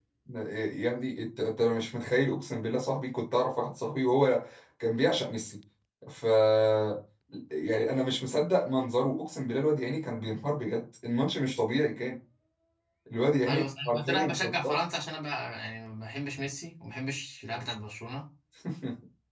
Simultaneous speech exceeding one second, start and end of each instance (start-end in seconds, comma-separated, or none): 13.5-14.8